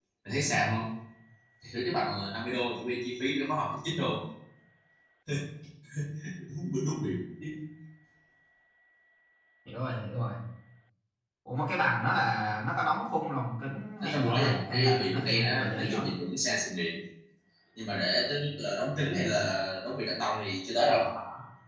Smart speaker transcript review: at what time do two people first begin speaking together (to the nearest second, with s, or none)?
14 s